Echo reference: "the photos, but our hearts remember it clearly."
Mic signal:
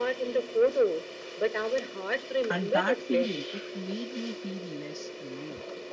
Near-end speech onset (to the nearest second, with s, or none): 2 s